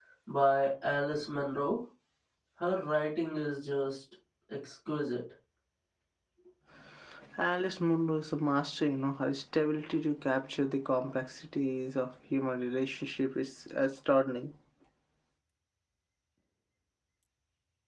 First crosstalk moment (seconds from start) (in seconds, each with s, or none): none